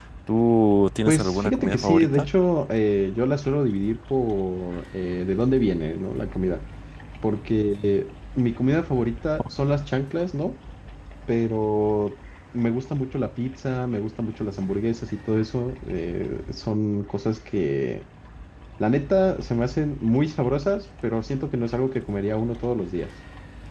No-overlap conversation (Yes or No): No